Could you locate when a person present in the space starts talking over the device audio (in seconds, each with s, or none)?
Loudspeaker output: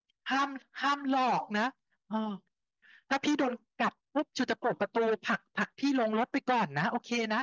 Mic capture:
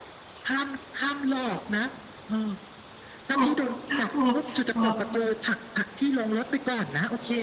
3.3 s